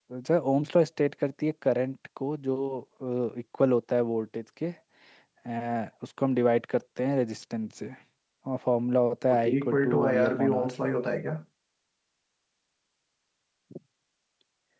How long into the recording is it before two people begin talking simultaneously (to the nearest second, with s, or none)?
9 s